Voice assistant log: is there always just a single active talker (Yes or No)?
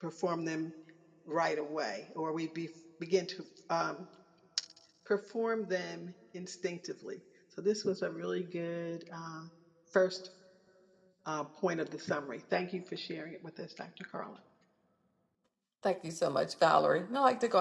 Yes